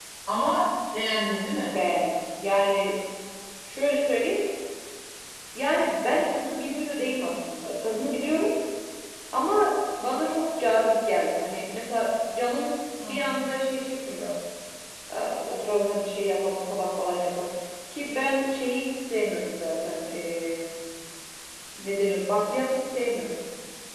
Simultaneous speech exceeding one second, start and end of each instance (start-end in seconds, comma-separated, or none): none